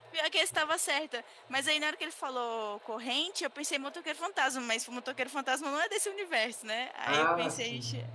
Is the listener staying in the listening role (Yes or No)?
Yes